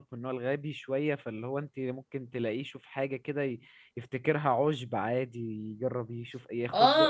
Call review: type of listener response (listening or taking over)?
taking over